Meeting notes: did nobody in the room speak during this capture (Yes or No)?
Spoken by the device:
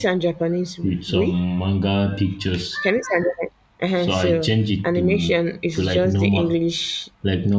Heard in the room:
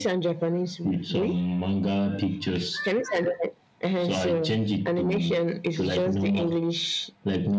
Yes